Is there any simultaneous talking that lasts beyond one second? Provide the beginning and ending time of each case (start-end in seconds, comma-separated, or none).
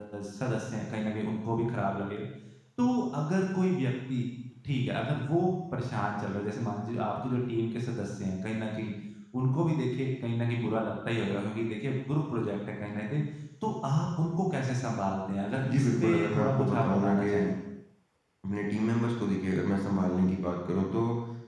15.7-17.3